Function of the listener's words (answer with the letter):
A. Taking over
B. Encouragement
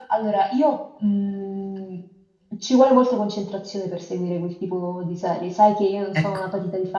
B